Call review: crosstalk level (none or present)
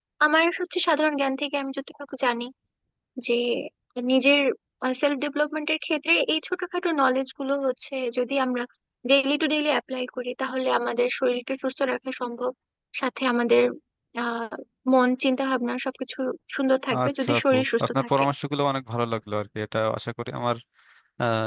present